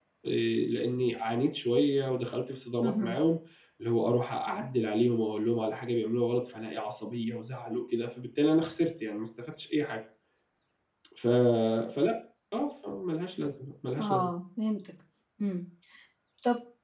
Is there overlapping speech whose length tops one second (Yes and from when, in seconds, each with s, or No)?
No